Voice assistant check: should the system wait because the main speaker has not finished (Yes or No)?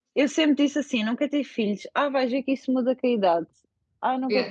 No